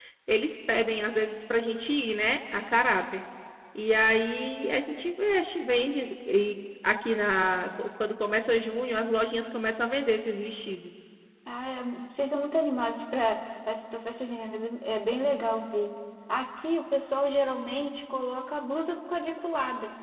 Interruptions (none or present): none